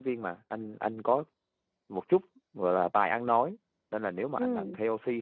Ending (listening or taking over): listening